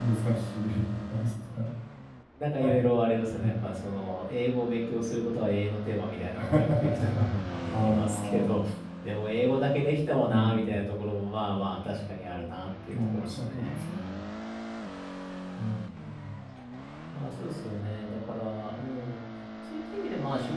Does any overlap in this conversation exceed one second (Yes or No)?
Yes